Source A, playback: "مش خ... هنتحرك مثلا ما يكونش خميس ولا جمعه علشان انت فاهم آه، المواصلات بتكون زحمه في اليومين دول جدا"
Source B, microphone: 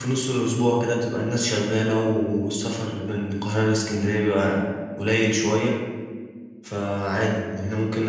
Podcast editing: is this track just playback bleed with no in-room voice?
No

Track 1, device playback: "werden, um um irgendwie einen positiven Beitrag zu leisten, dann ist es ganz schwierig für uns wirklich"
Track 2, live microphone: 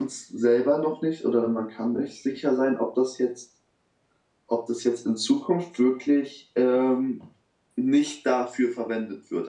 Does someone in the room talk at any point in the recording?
Yes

